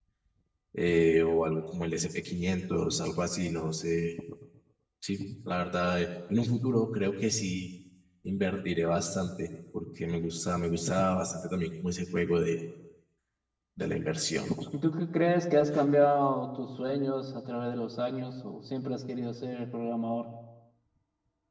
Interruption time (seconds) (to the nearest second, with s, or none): none